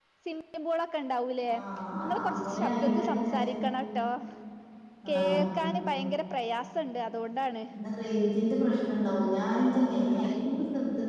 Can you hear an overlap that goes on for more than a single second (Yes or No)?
Yes